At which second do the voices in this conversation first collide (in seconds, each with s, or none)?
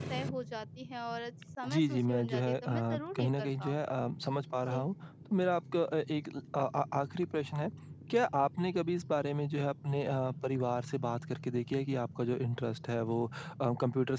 1.6 s